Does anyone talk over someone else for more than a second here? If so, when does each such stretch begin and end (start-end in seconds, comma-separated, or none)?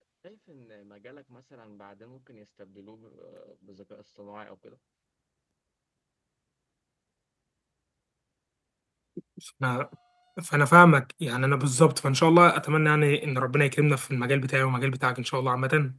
none